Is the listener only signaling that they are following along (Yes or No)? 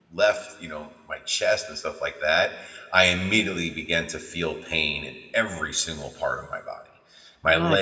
Yes